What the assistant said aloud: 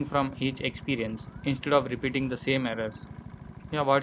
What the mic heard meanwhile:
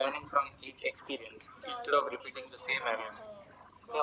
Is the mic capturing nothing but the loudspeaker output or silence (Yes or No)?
No